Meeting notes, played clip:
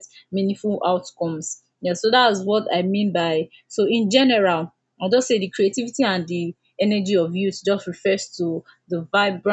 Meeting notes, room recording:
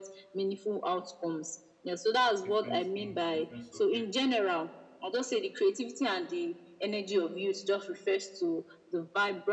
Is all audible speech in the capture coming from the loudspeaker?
No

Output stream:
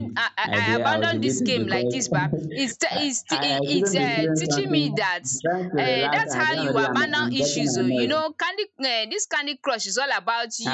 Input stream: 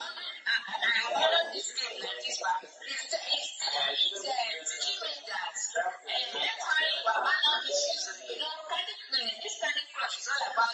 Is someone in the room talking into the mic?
No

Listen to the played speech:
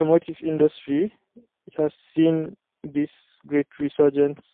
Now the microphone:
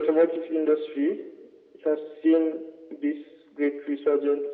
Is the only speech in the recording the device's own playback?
Yes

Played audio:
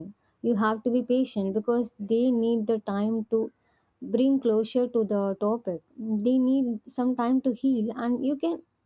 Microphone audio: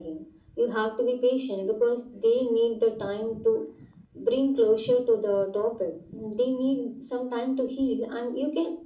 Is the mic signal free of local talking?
Yes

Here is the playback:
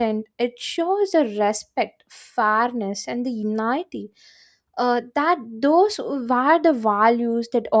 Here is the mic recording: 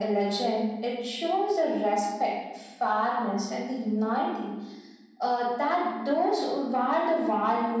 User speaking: No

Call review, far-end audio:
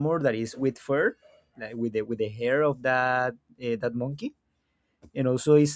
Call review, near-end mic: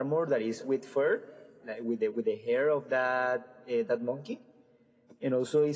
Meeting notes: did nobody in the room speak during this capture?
Yes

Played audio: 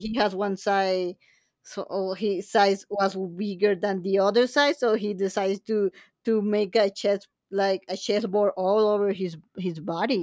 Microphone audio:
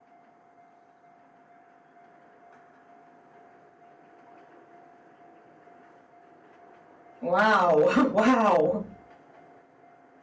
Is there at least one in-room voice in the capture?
Yes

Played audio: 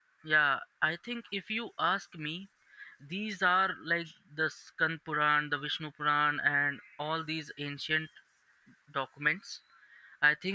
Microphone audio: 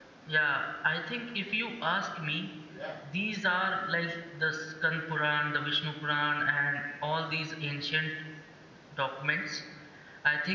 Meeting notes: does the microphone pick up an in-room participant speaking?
Yes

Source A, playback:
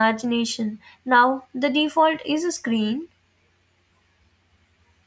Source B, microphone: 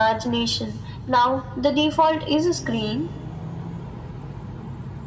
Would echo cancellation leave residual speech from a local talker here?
No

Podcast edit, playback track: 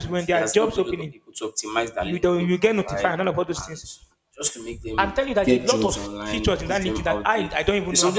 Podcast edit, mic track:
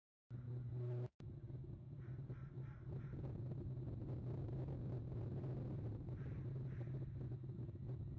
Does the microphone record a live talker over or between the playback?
No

